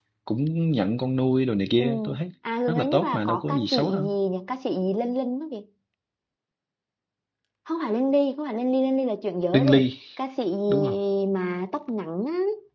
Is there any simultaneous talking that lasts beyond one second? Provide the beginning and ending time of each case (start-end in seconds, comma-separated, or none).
2.7-4.0